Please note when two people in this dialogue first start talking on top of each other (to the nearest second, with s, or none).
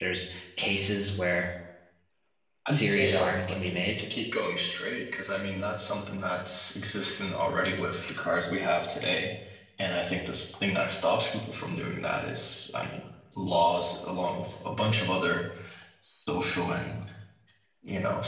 3 s